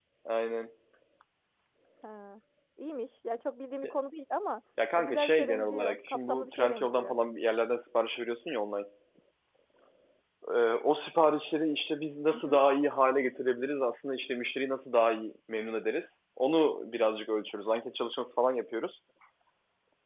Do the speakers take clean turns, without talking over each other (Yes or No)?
No